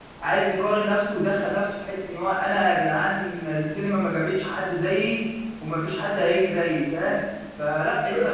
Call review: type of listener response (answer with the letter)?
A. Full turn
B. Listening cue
B